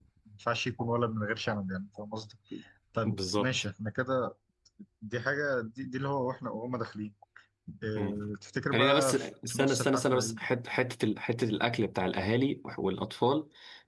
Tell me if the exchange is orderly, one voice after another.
No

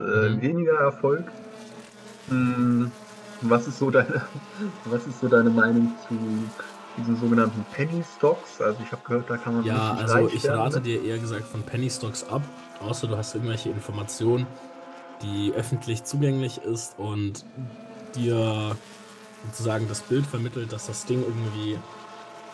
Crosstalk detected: Yes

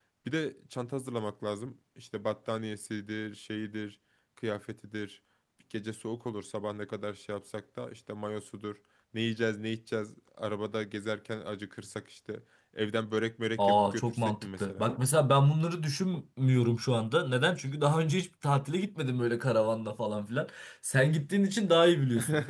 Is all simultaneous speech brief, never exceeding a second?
No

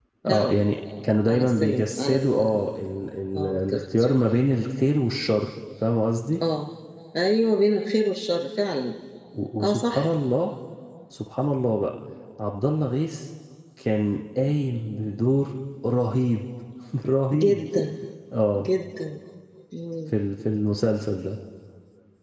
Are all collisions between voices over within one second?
No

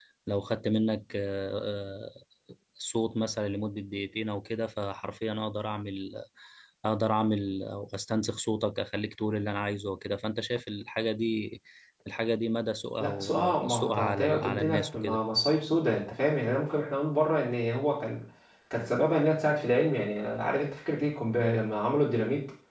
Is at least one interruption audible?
Yes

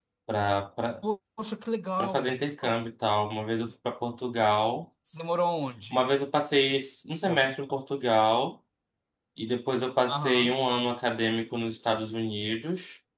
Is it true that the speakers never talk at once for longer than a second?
Yes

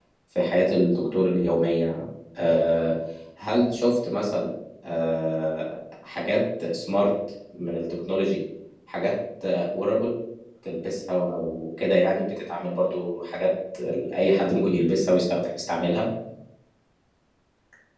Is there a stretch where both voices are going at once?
No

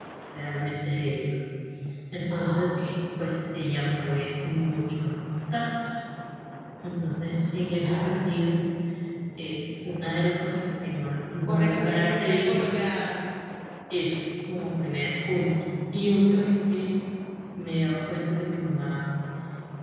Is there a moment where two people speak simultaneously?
Yes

